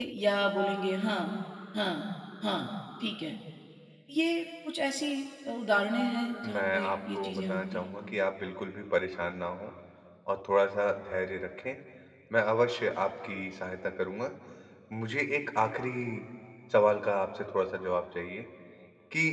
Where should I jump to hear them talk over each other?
6 s

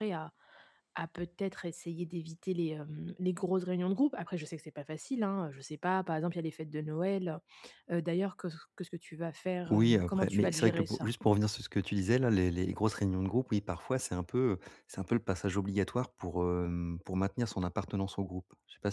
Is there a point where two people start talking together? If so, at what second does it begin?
10 s

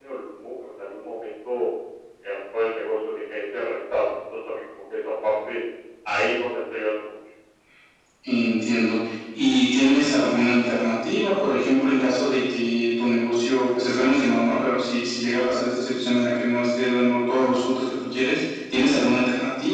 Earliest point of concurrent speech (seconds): none

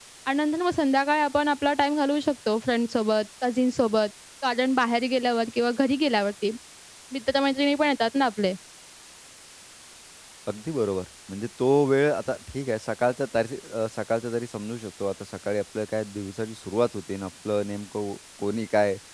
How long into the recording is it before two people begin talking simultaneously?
none

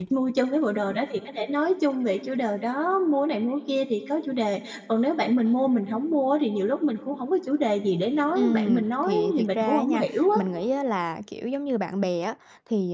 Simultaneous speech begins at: 8 s

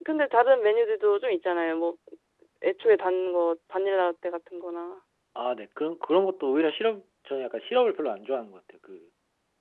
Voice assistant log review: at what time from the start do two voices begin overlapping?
none

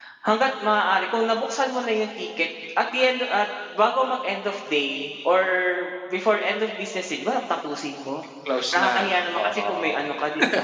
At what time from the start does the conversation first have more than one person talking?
9 s

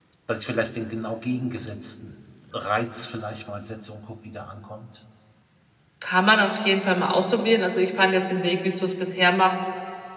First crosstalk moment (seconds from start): none

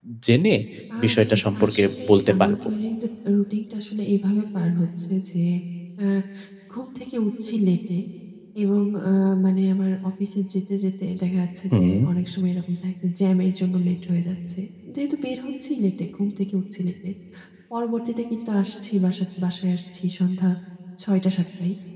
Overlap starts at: 1 s

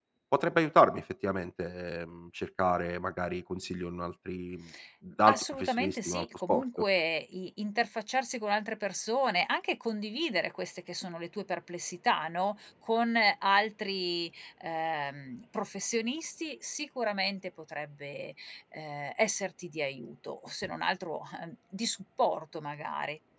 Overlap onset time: 5 s

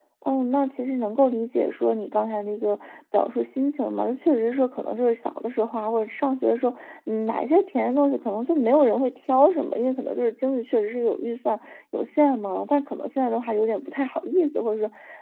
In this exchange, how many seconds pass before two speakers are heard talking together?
none

